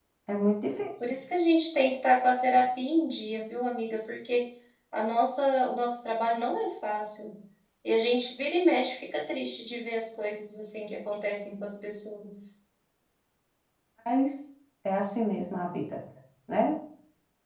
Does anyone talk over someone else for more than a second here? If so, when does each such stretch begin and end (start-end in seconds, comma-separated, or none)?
none